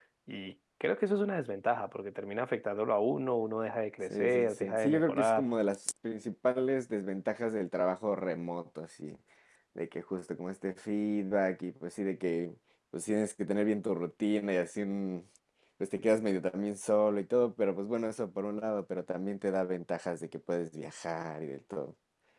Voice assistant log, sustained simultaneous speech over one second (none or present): present